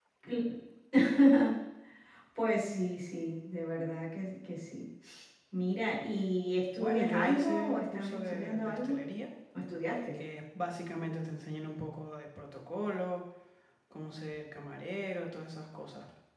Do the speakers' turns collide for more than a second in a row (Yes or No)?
Yes